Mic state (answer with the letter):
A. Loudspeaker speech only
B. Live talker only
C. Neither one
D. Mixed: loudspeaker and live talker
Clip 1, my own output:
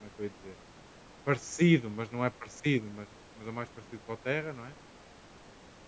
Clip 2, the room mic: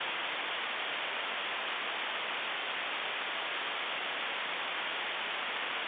C